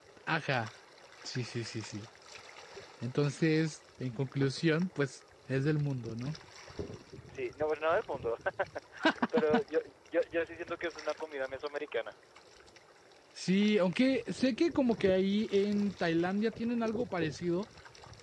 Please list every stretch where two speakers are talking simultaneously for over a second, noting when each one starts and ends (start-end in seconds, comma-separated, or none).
none